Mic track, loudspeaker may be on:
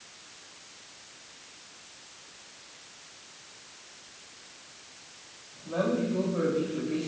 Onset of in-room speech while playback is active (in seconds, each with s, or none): 5.6 s